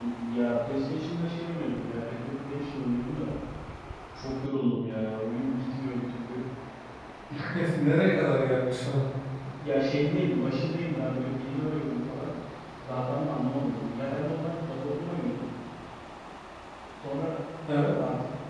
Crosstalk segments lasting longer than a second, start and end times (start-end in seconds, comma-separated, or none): none